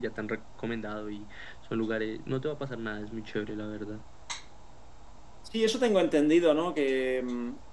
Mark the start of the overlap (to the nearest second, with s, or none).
none